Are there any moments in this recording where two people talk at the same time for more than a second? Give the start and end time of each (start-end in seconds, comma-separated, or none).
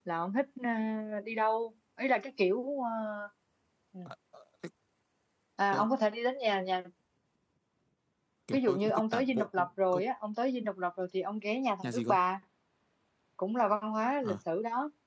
8.5-10.0